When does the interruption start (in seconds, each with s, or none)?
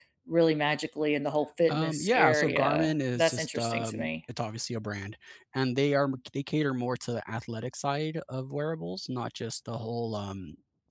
1.7 s